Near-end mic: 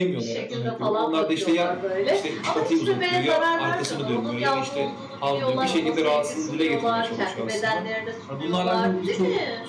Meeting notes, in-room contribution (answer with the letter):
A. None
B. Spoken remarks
B